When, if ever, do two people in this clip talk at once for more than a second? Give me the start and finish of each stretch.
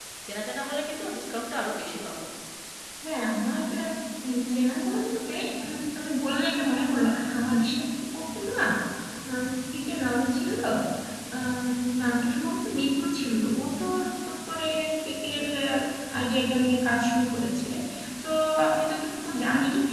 none

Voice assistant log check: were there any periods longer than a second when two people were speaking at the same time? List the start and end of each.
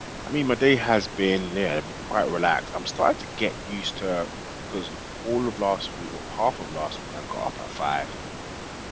none

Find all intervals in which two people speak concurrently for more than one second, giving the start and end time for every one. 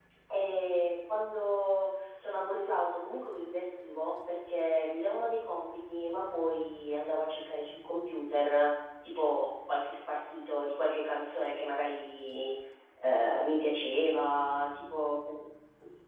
none

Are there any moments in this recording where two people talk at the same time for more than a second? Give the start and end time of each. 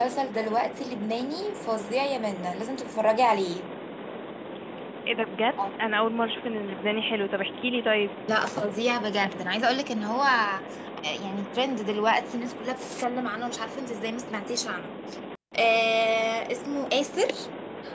none

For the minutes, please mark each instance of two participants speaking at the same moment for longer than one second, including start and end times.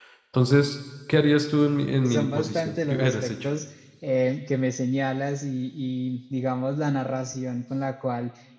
2.0-3.5

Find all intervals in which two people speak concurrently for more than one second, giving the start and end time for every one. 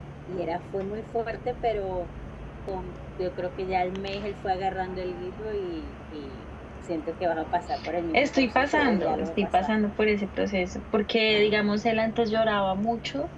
8.1-9.7

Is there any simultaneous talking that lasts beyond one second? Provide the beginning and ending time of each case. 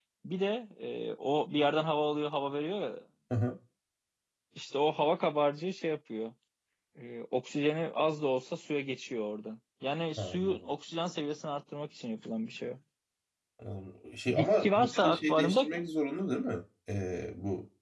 14.4-15.7

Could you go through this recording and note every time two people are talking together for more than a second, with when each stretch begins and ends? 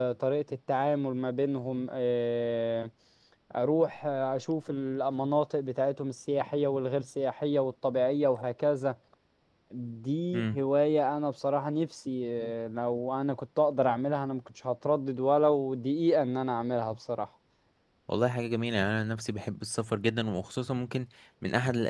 none

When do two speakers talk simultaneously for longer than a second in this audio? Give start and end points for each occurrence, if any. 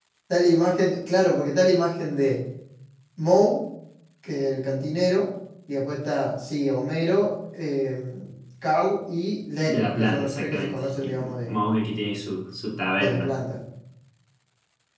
9.7-11.6

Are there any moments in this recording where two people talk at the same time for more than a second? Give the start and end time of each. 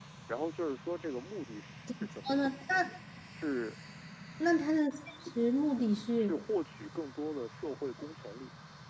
none

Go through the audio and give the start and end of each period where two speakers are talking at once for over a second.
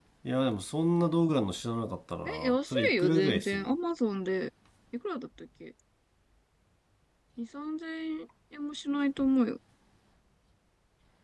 2.2-3.7

